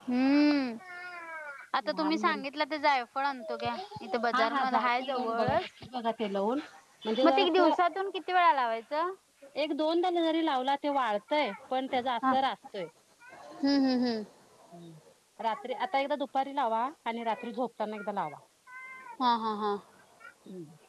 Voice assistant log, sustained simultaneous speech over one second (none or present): present